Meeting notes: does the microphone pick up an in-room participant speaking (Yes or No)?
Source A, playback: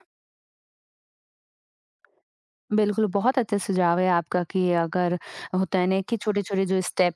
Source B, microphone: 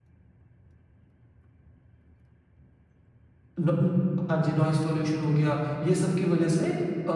Yes